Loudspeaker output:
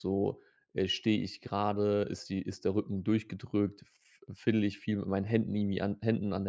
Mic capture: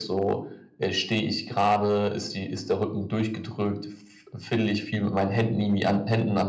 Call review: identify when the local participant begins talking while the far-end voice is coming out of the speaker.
none

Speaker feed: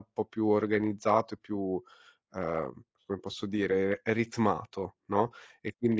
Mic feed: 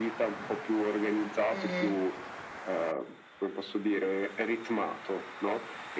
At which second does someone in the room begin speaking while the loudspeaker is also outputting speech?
1.5 s

